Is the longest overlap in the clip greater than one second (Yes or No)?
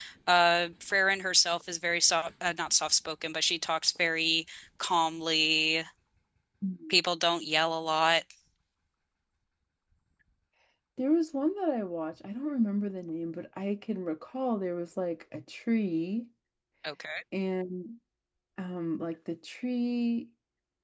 No